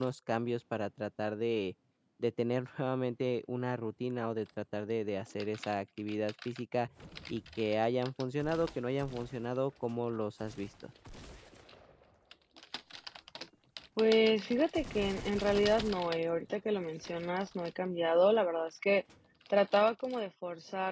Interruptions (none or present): none